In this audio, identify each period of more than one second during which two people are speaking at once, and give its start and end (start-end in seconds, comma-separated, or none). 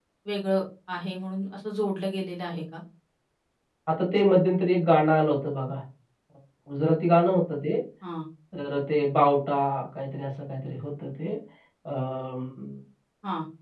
none